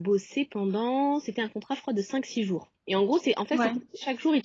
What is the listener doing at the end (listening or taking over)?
listening